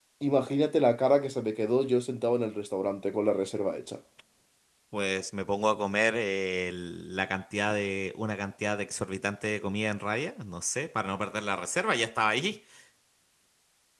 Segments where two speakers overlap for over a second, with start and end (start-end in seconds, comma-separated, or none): none